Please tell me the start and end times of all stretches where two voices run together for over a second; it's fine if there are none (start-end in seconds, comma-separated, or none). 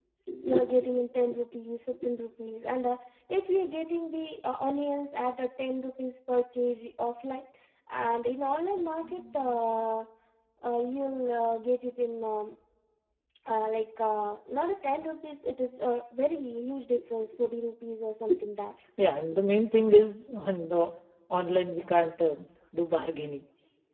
none